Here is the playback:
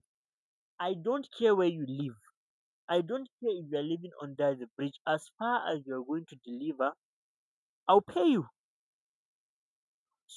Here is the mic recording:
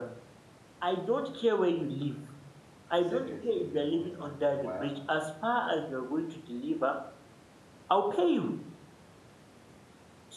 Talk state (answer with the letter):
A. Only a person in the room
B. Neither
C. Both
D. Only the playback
C